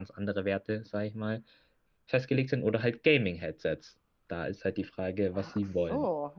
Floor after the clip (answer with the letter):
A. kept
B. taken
B